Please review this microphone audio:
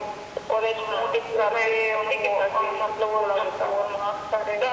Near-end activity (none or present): none